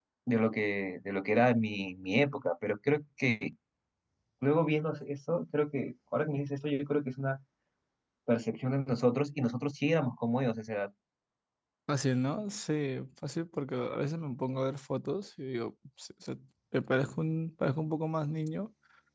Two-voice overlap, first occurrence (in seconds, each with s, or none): none